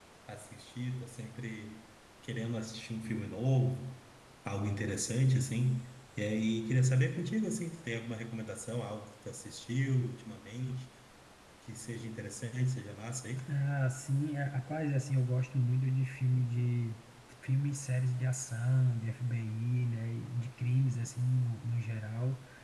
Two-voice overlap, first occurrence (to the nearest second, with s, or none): none